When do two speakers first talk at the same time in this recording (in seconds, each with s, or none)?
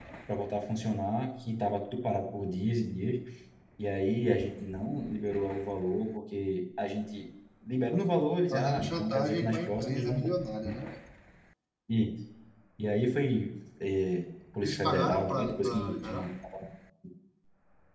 8.5 s